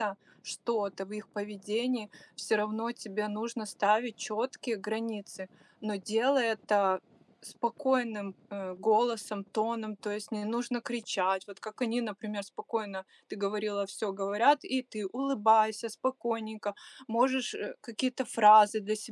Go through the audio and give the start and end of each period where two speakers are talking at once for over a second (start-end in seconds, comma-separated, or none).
none